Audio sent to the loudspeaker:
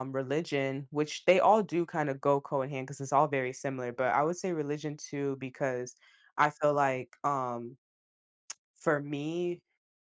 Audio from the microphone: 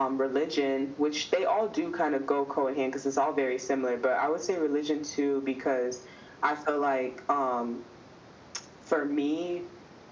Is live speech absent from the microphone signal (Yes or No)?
Yes